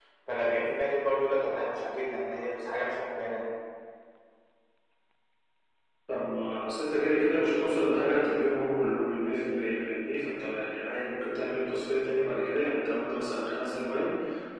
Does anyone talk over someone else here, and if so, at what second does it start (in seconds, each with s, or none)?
none